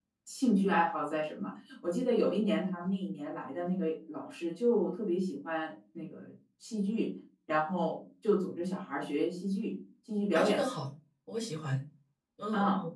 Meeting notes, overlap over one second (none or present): none